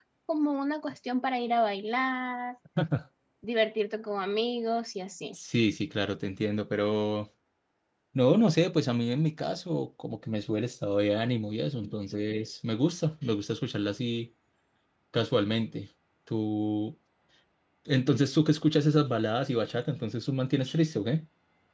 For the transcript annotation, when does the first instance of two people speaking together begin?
none

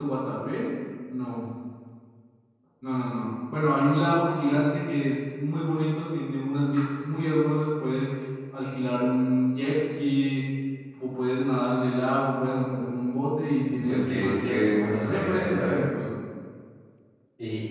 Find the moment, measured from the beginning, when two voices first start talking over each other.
13.7 s

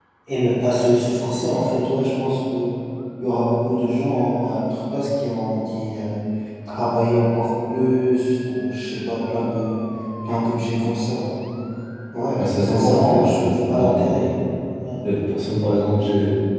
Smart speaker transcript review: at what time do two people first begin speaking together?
12.3 s

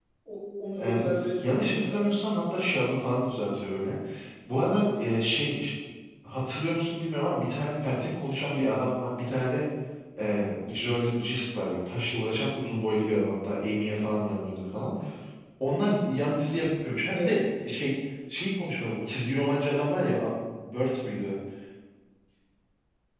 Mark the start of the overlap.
0.8 s

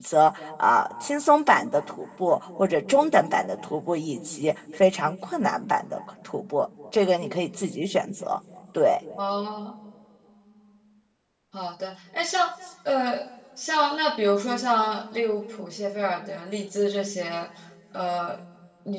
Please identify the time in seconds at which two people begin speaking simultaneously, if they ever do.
none

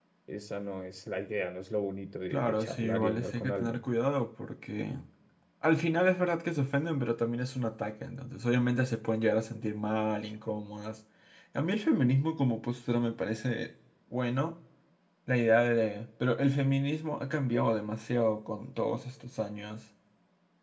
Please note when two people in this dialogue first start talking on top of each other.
2.3 s

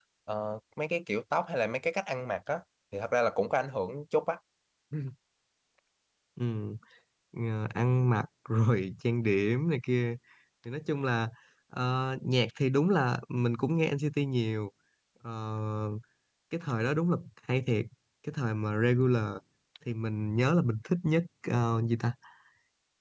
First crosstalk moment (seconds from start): none

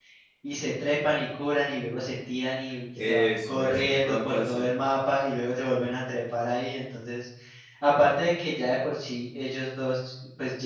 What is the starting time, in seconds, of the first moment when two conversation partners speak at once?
3.0 s

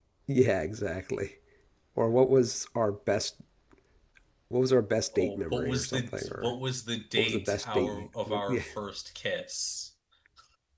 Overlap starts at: 5.1 s

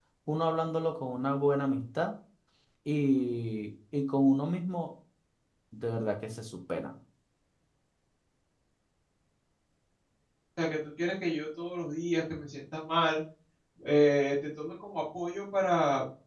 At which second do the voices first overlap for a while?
none

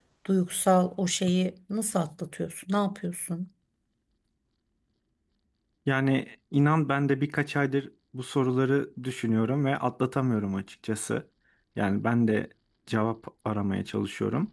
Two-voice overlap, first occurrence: none

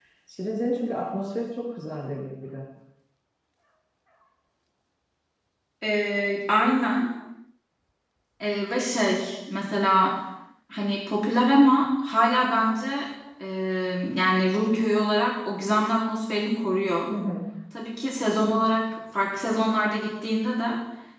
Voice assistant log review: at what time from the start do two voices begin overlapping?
none

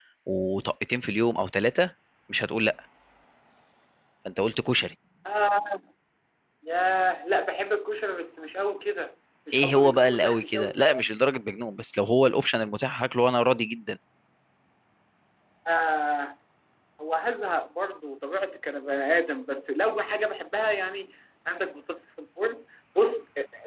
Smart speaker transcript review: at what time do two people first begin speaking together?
9.5 s

